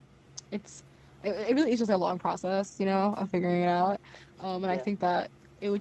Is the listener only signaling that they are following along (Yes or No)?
Yes